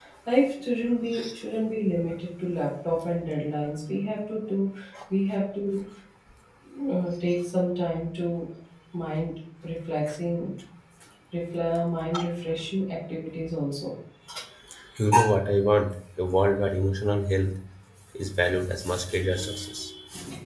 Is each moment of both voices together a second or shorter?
Yes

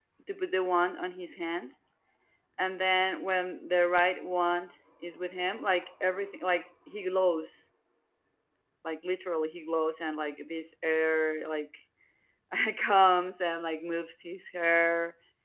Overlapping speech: No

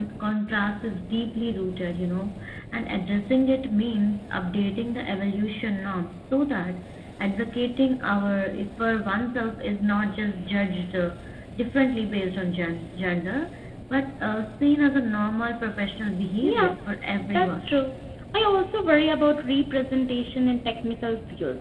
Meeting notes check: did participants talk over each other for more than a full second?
No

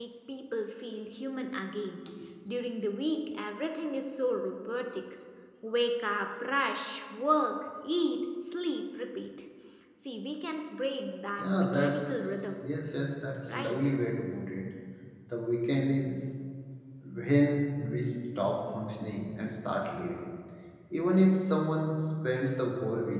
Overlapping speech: Yes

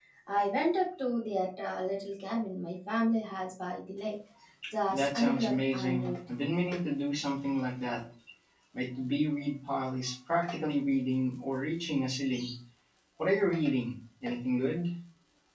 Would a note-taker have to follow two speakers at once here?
Yes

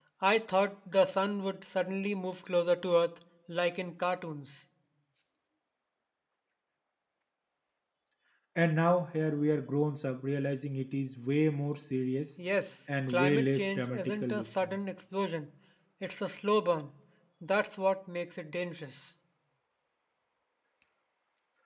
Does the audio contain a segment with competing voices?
Yes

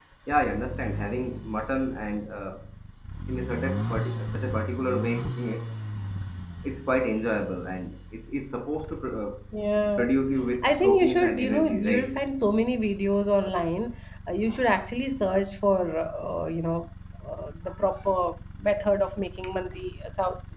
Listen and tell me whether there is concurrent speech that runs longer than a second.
Yes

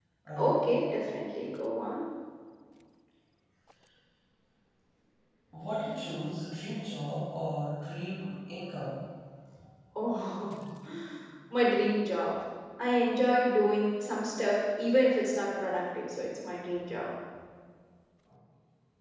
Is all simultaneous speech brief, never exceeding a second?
Yes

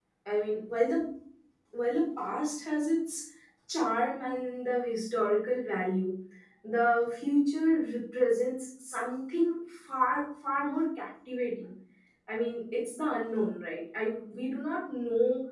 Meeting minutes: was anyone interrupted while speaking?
No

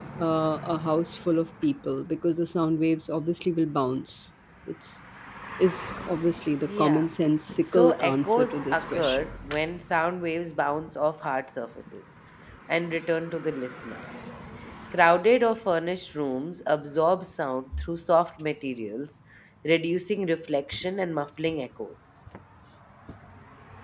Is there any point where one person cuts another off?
Yes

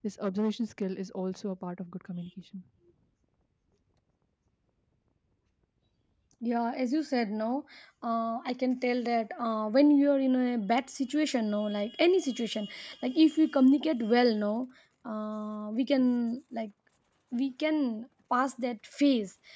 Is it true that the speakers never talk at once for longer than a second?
Yes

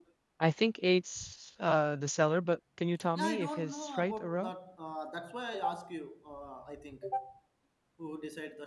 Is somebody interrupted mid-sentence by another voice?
Yes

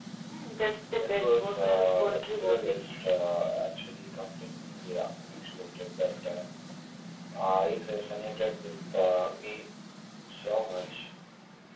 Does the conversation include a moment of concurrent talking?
Yes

